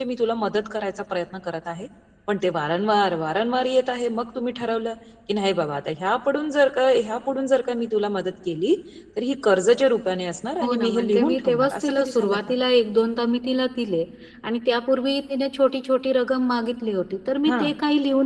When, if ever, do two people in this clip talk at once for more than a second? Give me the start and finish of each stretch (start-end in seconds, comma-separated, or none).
10.6-12.5